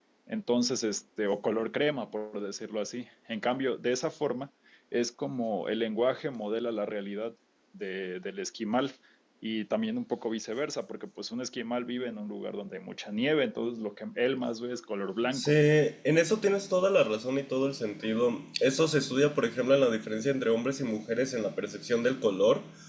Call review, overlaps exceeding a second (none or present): none